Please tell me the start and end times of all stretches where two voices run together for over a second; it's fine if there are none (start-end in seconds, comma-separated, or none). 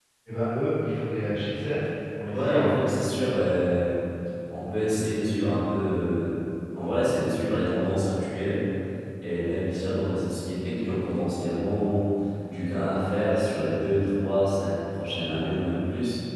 none